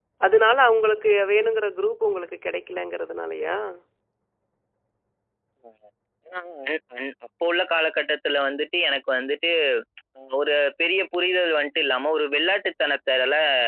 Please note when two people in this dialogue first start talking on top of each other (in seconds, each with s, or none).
none